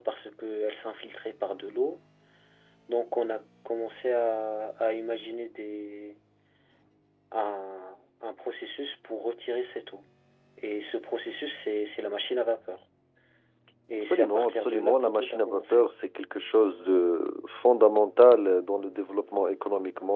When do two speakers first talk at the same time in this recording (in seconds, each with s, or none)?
13.9 s